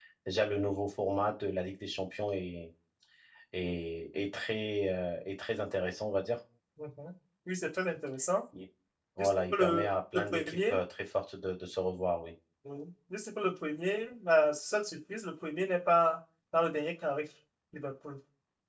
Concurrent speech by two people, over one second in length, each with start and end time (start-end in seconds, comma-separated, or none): 9.2-10.8